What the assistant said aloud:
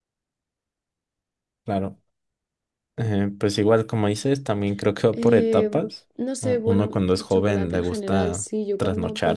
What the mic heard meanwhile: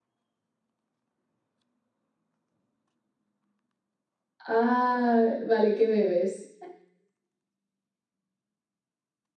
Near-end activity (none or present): present